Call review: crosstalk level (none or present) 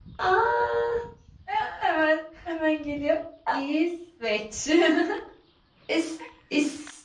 none